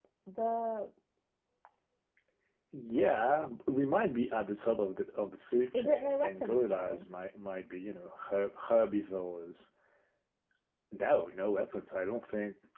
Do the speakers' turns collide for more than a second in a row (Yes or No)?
Yes